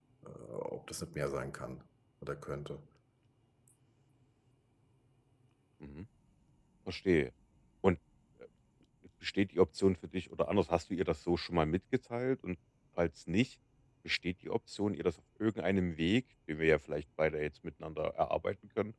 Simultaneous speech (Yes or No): No